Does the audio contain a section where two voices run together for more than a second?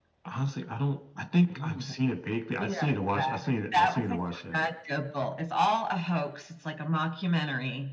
Yes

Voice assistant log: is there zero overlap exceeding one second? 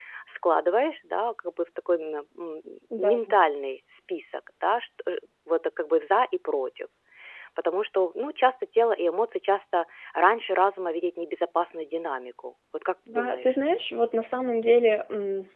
Yes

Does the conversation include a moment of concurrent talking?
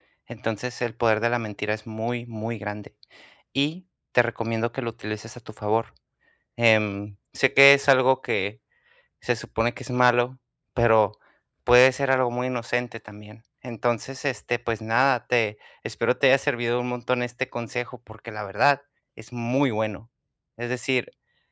No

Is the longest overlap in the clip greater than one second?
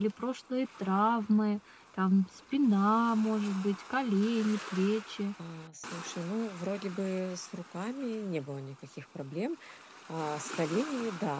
No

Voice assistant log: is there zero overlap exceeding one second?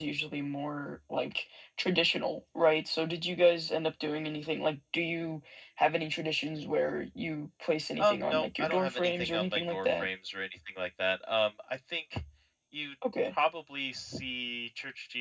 No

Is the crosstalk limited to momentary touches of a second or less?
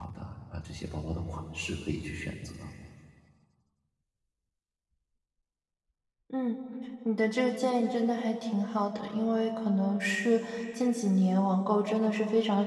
Yes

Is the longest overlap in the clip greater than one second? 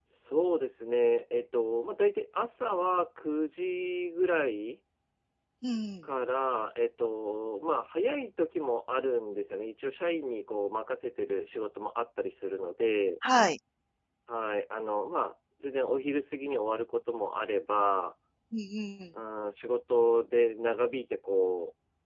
No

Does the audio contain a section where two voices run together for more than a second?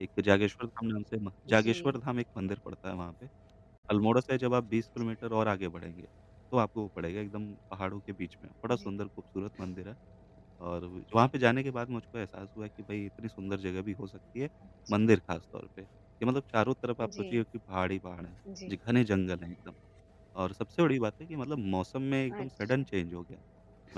No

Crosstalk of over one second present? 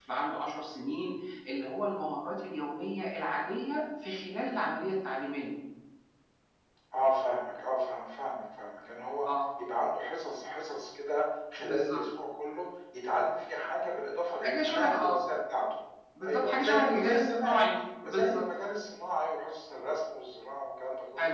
Yes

